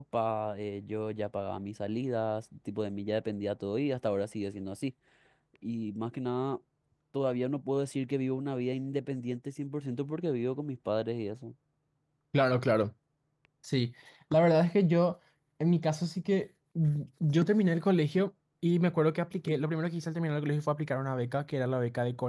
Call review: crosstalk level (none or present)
none